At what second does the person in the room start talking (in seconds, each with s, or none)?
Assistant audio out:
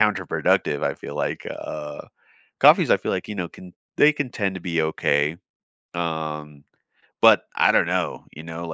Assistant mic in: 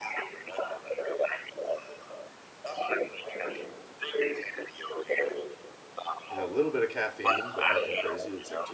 6.3 s